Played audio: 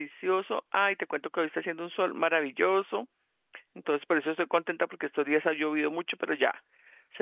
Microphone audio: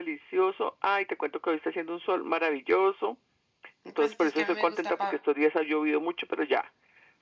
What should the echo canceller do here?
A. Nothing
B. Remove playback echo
B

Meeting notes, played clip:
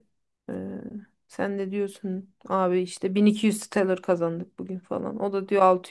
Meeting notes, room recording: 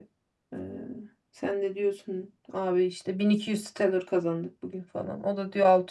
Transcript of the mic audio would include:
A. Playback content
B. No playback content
A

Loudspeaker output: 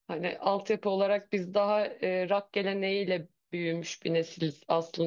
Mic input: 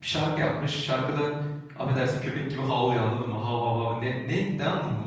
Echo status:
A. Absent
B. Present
A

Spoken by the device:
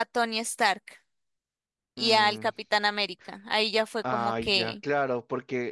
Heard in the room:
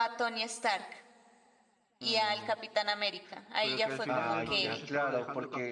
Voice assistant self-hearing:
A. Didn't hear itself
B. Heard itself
B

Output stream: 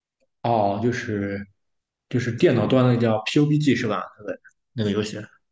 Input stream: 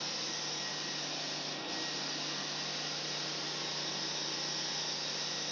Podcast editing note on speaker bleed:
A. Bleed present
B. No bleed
B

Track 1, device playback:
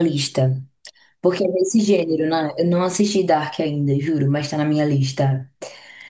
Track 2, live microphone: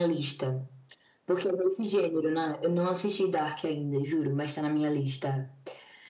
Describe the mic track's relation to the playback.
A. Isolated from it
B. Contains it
B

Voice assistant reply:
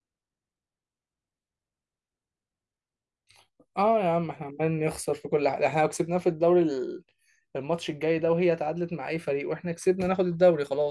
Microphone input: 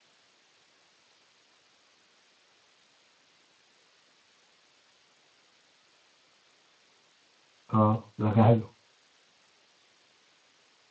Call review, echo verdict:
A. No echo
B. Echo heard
A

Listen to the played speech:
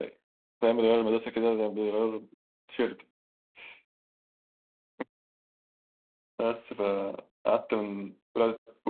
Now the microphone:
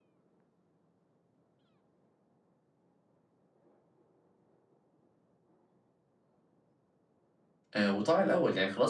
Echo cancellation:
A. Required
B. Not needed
B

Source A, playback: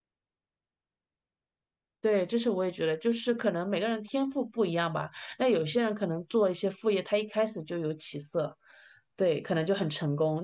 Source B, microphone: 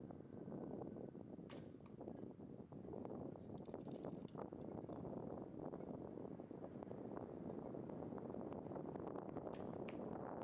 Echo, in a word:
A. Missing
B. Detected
A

